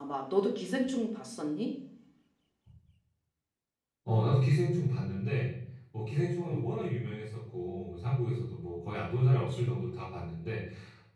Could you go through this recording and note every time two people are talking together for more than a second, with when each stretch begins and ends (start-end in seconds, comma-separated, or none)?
none